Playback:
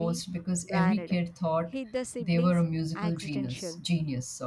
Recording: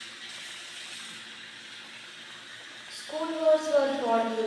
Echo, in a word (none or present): none